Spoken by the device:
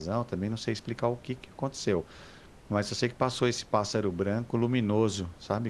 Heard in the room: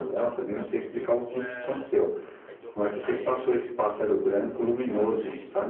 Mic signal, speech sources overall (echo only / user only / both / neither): both